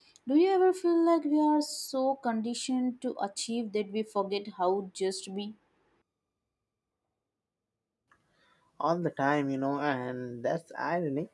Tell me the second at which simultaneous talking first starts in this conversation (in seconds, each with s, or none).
none